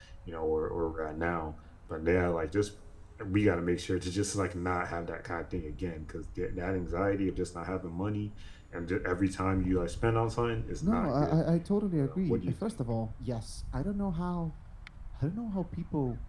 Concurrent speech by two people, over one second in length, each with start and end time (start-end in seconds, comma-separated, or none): 10.8-12.6